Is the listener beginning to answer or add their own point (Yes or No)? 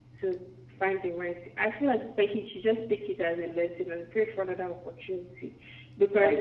Yes